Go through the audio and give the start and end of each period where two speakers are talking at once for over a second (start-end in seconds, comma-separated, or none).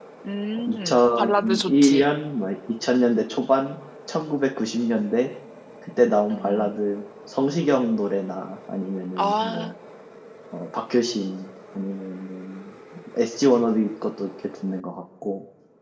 0.7-2.0